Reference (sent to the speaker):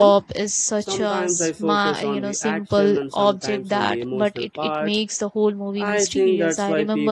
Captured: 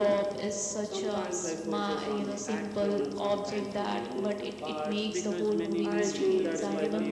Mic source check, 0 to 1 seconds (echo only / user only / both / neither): echo only